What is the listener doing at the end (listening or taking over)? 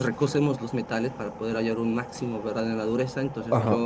listening